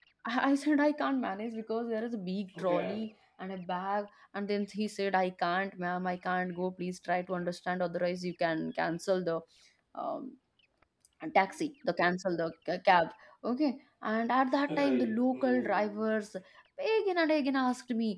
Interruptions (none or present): present